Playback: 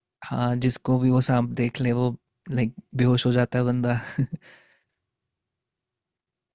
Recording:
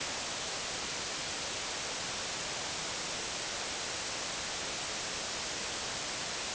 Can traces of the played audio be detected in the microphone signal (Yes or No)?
No